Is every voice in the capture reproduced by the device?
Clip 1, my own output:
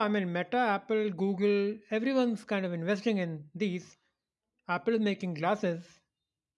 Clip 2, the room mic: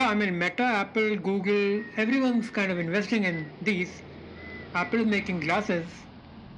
Yes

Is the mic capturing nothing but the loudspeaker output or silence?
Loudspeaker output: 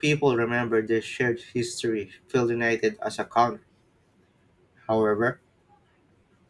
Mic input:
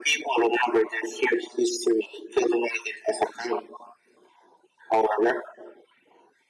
Yes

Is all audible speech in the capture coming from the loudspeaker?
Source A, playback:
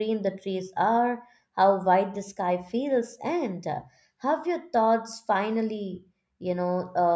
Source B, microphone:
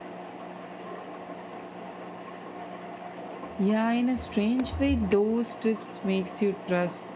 No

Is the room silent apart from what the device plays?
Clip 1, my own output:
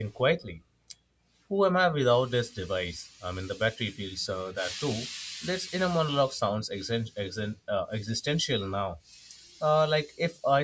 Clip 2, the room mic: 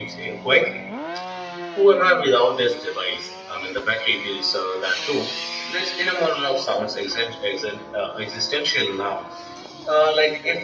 Yes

